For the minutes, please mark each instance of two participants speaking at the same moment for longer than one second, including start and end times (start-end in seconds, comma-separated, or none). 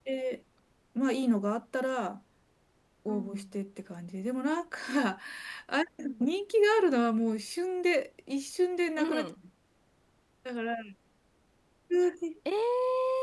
none